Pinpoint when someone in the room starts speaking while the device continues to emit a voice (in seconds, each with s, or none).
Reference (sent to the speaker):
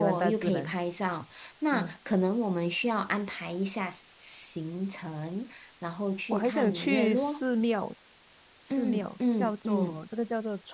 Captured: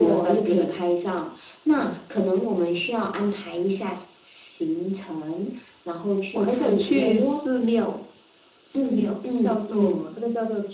none